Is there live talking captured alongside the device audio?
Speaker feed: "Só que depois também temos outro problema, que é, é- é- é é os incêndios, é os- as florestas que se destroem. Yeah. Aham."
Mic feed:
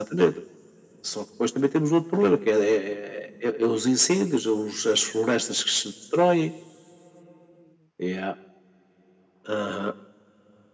No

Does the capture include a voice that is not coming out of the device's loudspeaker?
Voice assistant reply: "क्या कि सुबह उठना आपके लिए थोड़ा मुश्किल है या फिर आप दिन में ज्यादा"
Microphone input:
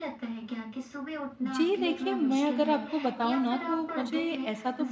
Yes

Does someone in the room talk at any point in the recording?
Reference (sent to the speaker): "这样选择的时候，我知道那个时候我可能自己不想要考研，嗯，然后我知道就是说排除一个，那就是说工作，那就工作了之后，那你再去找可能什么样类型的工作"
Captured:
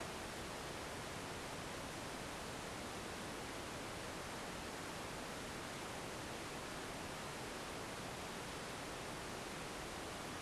No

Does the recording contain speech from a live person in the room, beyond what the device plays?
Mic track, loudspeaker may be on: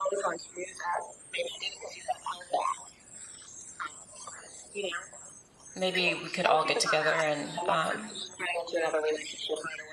Yes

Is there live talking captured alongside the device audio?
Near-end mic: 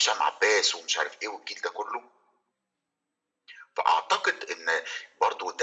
No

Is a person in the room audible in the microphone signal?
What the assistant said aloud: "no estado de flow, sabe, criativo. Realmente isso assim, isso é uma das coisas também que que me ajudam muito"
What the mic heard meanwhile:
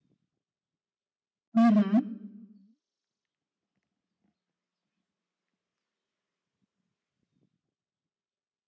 Yes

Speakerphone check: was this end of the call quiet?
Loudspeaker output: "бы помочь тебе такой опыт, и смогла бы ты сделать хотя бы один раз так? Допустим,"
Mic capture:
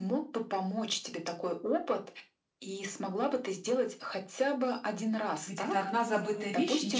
No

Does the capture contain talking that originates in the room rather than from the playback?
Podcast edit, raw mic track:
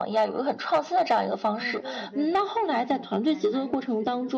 Yes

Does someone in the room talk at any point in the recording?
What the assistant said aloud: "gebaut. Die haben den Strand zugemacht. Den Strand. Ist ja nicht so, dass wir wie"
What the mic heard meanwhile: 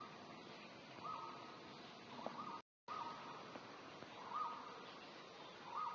No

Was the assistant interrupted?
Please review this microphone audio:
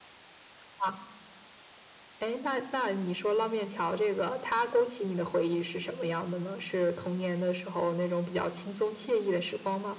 No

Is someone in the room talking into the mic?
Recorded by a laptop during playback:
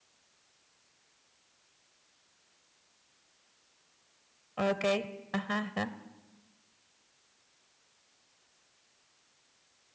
Yes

